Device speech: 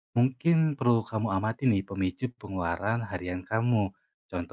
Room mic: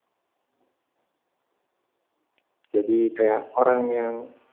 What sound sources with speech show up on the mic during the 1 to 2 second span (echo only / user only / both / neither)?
neither